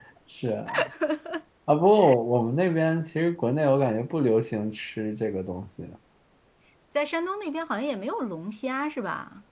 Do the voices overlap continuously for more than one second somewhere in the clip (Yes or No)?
No